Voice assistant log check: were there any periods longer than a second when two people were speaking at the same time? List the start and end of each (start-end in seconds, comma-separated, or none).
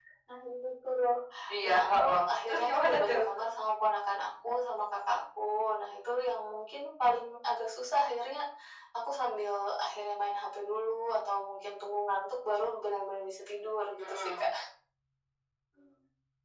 1.6-3.2